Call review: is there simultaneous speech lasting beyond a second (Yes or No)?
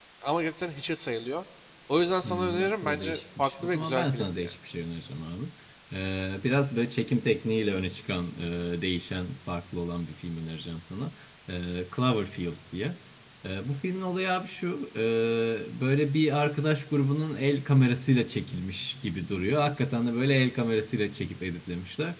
Yes